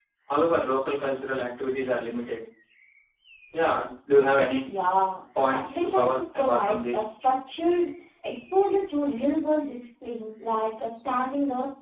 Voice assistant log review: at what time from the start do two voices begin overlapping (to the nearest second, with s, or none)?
5 s